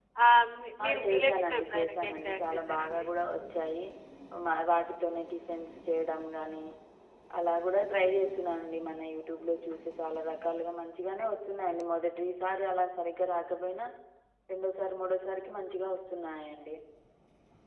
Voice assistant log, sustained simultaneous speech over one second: present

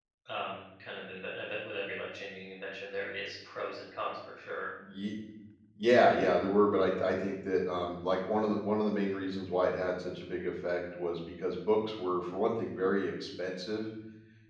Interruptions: none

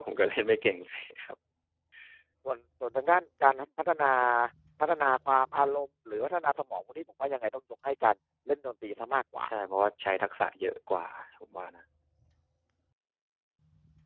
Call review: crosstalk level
none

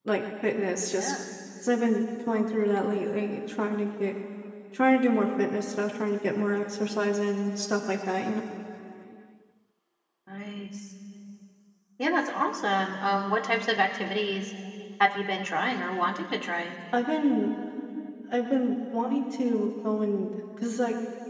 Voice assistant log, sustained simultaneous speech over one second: none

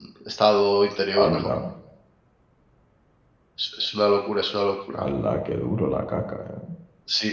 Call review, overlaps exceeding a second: none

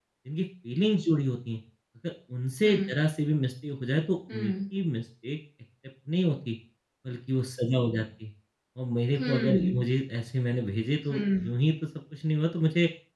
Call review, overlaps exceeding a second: none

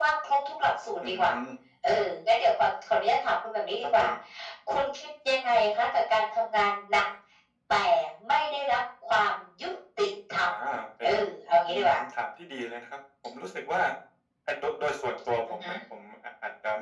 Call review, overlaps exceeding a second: none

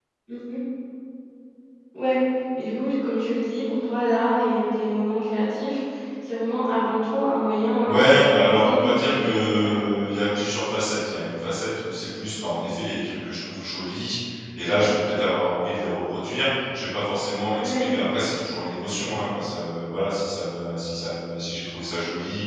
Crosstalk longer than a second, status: present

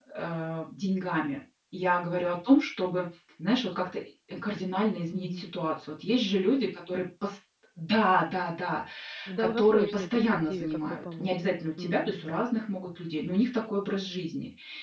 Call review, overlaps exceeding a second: present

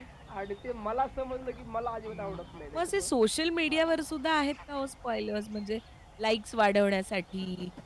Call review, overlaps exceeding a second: none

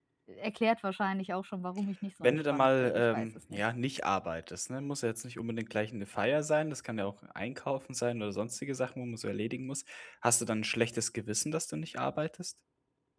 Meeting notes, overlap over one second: present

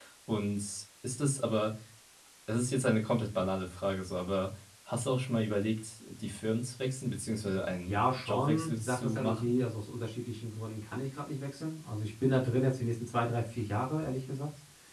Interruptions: present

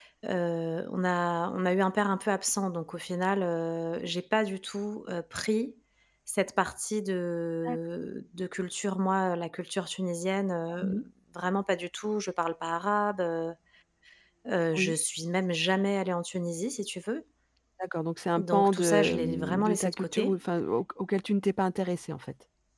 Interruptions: present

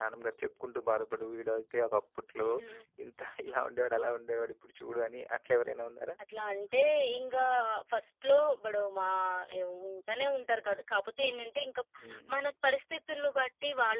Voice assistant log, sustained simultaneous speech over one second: none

